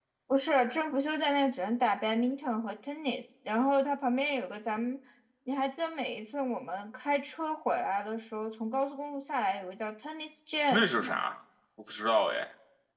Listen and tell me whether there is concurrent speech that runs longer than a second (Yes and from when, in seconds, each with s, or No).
No